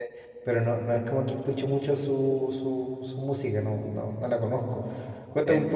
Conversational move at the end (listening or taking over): listening